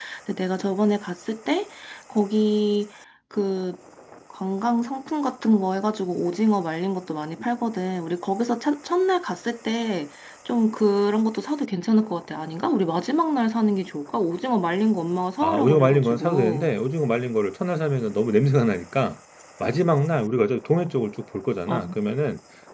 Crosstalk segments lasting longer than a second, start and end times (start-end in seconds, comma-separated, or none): 15.4-16.7